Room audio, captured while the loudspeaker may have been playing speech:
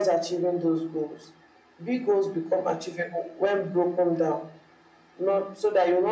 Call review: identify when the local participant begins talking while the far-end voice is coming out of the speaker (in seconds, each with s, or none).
none